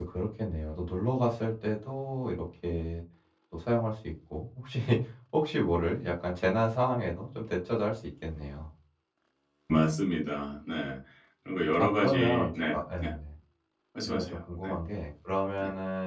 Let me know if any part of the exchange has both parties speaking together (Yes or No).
Yes